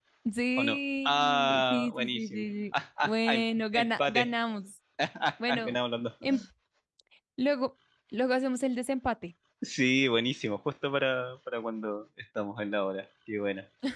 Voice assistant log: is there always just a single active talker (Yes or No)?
No